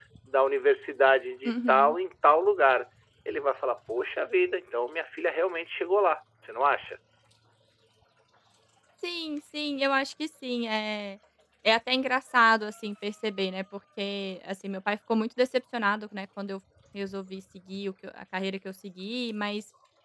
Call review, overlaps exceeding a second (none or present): none